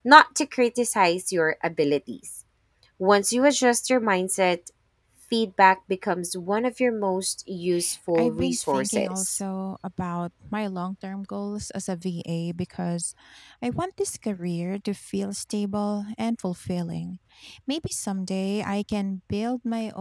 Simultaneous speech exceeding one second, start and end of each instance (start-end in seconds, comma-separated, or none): 8.2-9.4